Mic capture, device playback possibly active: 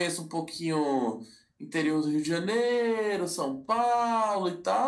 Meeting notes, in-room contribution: none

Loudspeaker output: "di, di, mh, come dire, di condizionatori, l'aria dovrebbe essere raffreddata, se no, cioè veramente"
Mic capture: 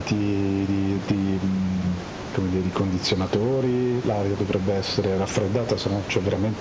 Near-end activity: none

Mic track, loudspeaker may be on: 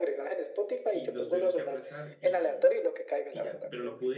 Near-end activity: present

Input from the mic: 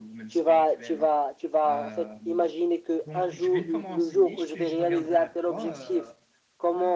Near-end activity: present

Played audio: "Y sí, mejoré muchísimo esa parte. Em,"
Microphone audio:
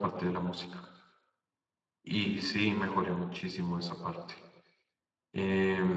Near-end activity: none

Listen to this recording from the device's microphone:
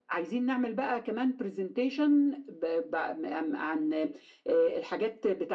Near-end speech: none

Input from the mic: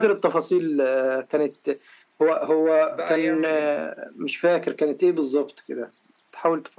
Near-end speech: present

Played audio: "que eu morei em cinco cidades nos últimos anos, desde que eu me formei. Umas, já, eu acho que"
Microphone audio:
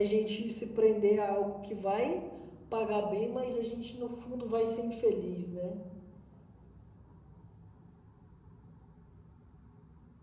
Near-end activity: present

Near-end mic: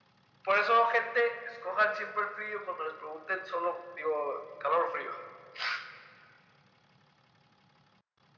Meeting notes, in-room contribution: none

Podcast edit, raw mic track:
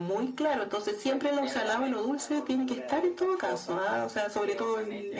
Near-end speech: present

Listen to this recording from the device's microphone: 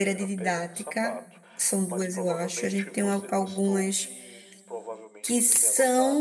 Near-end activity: present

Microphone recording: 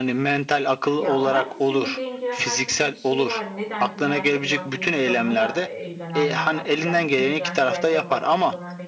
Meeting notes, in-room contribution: present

